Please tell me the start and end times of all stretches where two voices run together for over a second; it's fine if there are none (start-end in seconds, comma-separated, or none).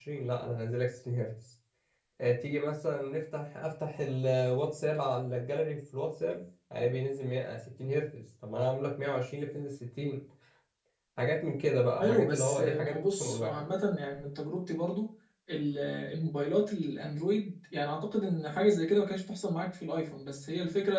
12.0-13.7